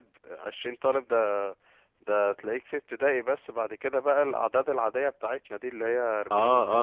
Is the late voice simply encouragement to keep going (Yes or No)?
No